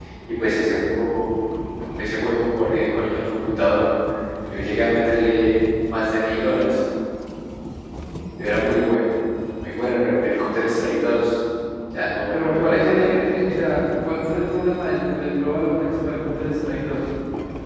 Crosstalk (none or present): present